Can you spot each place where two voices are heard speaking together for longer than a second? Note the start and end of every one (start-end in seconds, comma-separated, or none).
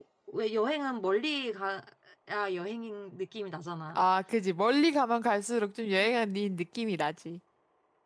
none